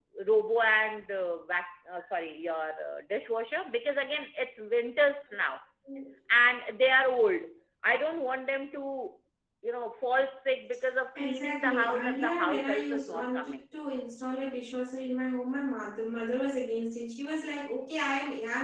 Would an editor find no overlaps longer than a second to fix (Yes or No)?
No